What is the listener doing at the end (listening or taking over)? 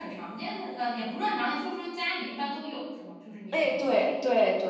taking over